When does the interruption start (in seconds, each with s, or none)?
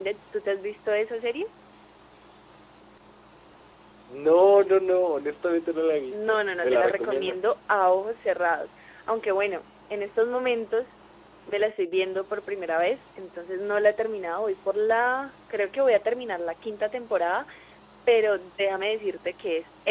6.1 s